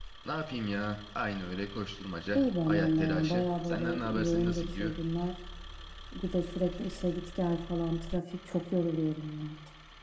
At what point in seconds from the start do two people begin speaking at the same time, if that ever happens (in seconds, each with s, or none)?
2.3 s